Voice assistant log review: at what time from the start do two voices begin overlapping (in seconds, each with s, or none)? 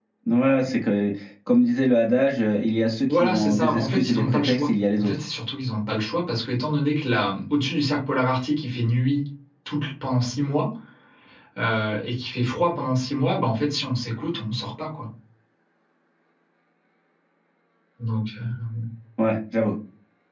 3.1 s